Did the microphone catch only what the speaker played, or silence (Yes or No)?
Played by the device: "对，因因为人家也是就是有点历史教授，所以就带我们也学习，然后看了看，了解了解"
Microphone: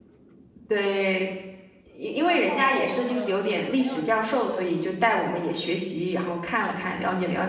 No